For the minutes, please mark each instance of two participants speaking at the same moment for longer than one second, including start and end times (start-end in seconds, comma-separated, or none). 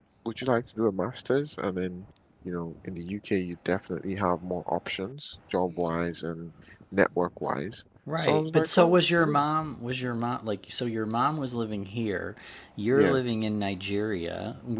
8.2-9.4